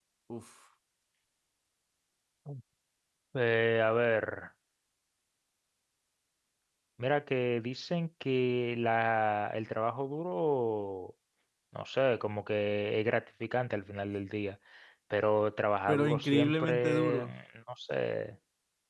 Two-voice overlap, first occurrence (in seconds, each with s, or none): 15.9 s